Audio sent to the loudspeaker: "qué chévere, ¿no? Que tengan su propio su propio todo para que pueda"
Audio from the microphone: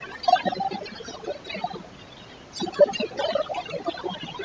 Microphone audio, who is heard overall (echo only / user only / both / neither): echo only